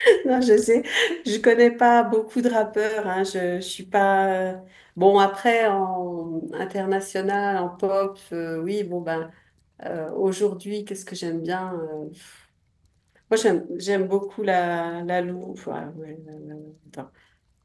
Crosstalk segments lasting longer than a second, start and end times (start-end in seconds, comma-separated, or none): none